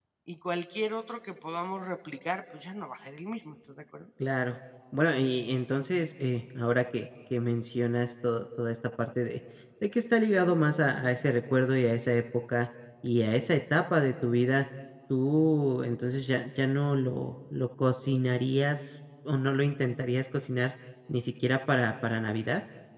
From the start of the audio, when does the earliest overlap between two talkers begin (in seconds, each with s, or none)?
none